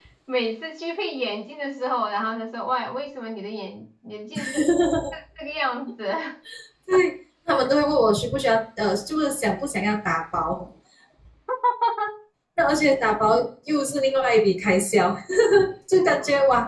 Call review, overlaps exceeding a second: none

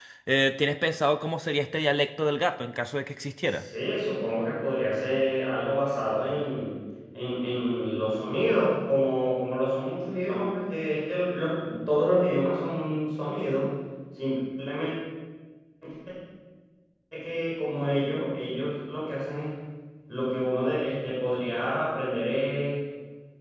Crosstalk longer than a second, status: none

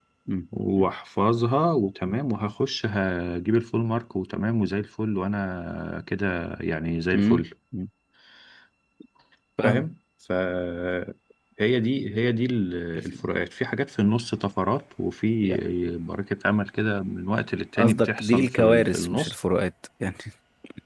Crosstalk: present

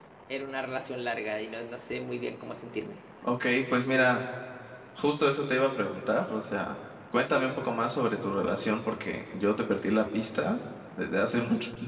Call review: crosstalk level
none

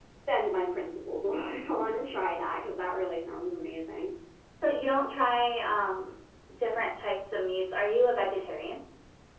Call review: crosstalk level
none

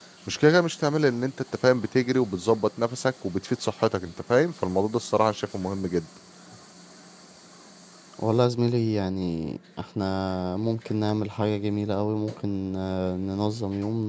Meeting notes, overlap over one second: none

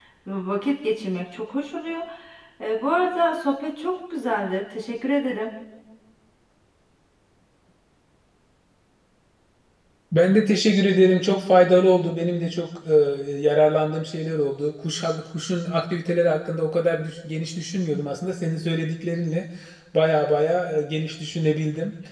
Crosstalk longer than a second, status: none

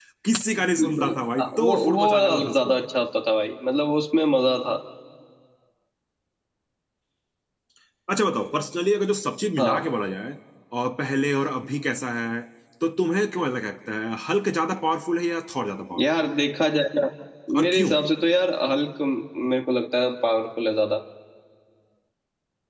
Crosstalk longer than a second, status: present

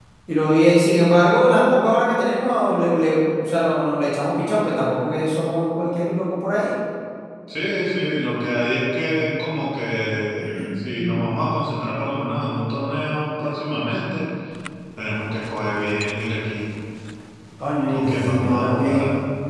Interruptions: present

